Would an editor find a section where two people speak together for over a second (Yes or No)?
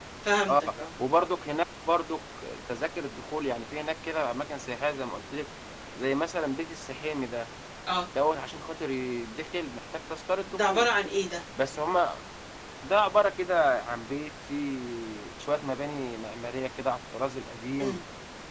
No